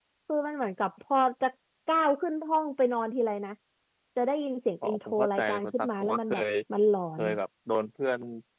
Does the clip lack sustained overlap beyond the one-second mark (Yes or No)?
No